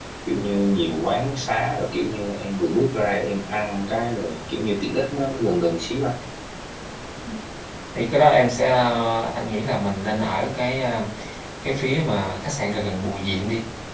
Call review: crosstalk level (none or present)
none